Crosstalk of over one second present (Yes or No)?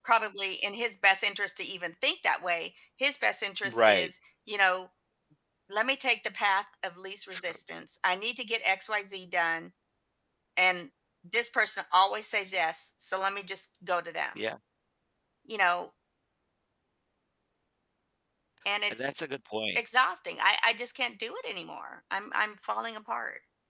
No